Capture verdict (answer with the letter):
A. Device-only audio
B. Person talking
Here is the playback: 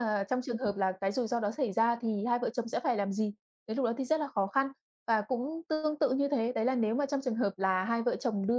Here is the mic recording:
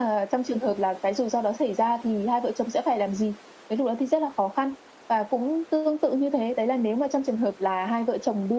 A